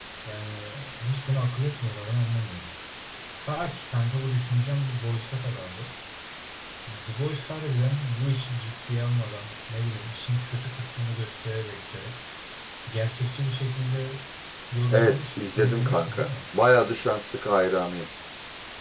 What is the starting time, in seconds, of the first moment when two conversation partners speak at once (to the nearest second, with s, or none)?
15 s